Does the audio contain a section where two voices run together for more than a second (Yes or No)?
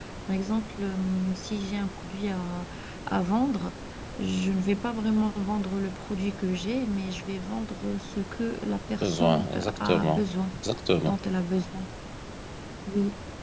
Yes